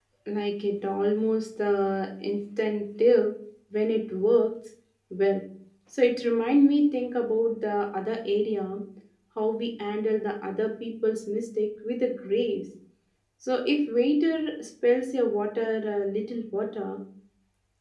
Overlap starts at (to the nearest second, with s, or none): none